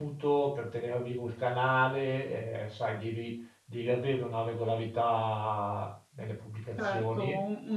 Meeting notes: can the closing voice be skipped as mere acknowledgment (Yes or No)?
No